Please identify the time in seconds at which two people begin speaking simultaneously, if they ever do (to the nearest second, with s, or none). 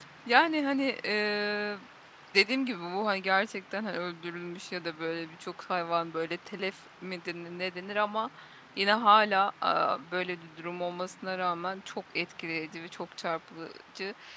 none